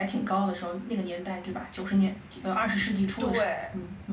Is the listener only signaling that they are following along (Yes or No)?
No